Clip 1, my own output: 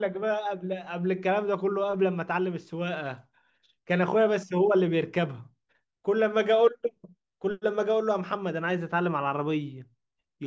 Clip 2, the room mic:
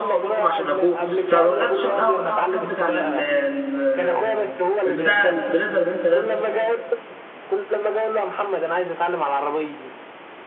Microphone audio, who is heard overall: both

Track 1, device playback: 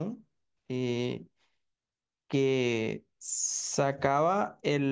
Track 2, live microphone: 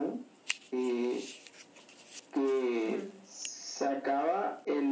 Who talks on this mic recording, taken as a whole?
both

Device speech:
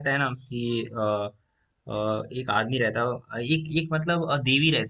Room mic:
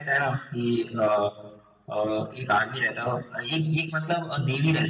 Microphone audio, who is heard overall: echo only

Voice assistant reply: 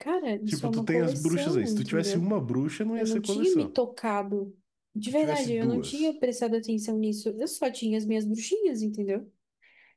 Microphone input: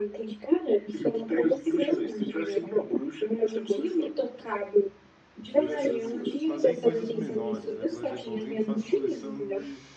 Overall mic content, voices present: both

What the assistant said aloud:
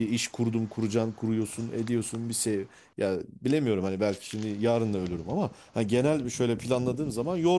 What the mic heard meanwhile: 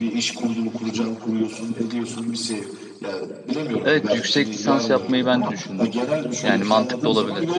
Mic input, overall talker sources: both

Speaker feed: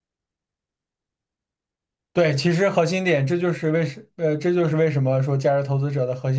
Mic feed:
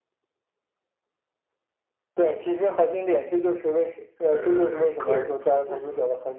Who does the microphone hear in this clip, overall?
both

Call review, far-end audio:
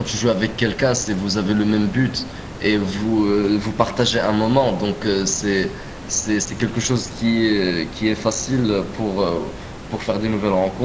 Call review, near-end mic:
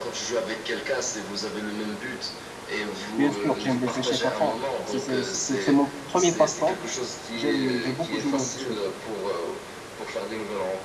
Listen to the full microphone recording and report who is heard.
both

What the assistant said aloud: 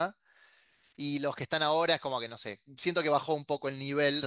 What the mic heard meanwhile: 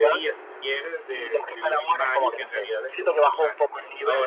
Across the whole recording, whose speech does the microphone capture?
both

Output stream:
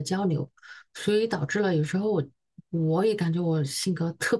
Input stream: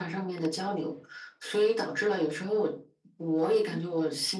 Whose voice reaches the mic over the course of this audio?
both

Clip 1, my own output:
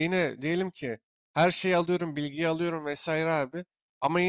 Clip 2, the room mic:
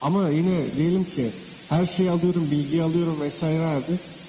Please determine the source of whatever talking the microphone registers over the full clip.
echo only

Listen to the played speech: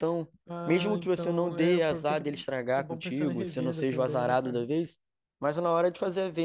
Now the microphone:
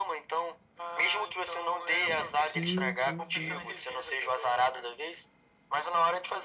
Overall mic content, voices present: both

